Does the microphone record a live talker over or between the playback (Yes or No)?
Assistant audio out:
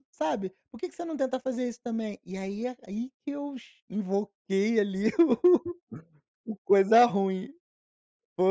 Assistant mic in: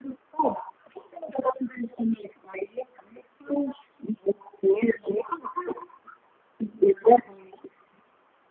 No